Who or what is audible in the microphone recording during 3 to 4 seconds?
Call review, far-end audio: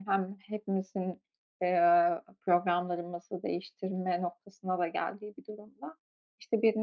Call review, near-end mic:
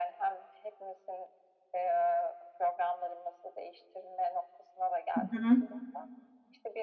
echo only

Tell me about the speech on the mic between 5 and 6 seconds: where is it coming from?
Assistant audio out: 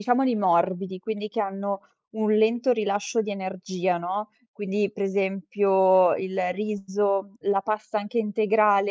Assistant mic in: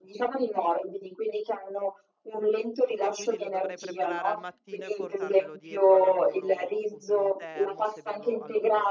both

